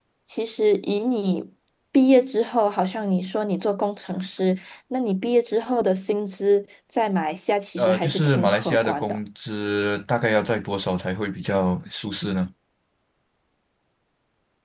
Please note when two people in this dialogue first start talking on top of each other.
8 s

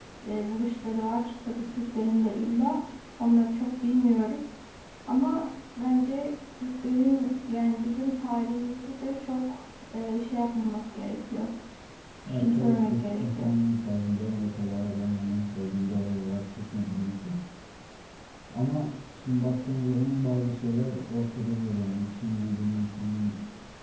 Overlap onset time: 12 s

